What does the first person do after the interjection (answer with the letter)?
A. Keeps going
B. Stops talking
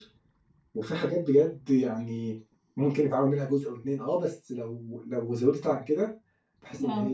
A